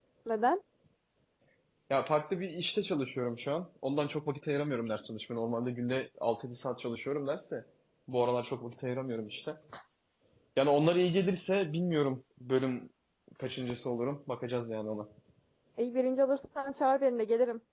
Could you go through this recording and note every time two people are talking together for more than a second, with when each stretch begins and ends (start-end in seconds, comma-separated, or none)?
none